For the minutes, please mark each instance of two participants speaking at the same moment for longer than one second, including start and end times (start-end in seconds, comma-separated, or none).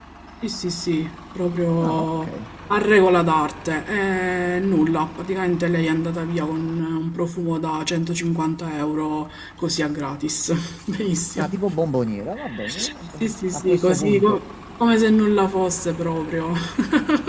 13.2-14.4